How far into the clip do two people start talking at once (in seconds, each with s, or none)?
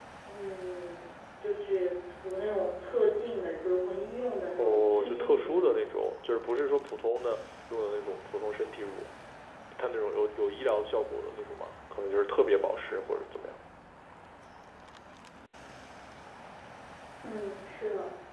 4.6 s